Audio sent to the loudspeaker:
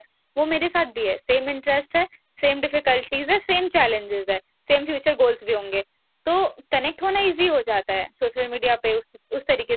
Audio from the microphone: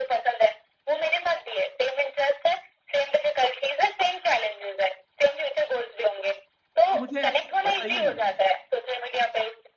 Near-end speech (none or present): present